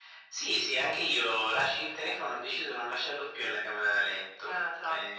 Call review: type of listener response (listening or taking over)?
listening